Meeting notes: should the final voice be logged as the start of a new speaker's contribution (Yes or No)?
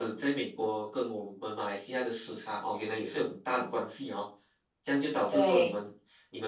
No